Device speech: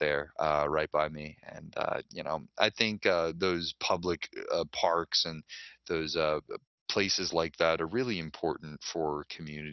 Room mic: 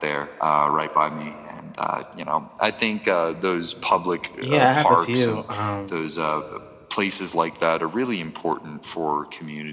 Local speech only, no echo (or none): Yeah, I have a few, um,